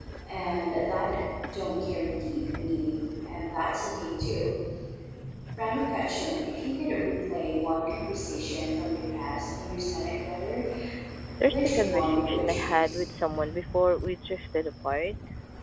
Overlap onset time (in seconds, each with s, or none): 11.4 s